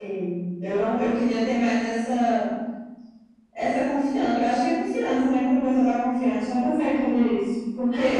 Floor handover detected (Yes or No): No